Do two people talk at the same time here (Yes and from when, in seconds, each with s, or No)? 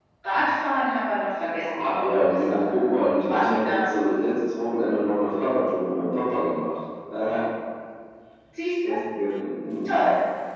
Yes, from 1.6 s